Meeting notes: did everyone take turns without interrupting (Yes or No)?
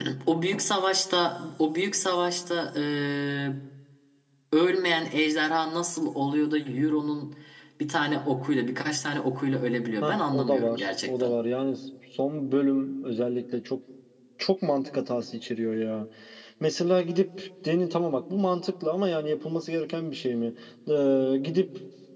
No